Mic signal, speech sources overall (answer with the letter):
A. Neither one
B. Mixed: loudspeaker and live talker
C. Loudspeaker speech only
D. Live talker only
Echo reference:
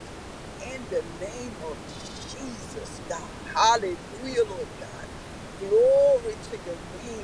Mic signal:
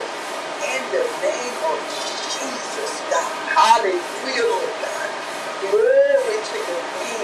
C